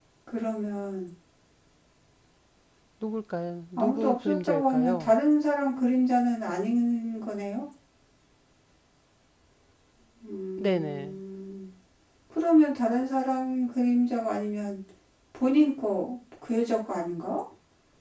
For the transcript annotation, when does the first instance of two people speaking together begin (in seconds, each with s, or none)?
3.8 s